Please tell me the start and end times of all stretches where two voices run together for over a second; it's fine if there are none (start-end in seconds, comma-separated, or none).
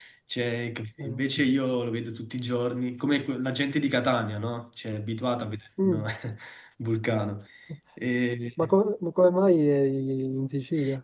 none